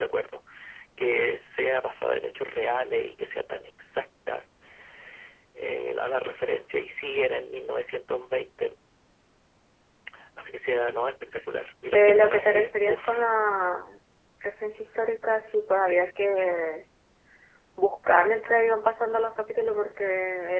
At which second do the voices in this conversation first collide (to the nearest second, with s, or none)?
12 s